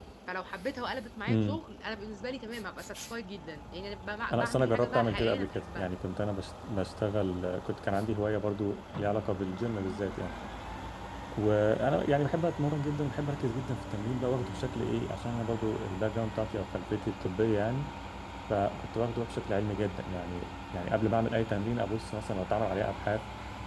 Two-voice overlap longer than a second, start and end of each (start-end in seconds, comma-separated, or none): 4.3-5.9